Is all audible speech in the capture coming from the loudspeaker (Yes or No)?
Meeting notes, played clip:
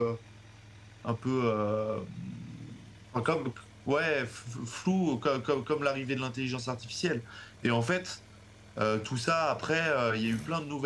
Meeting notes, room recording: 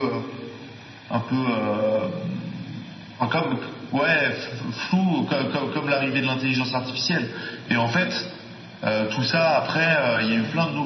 Yes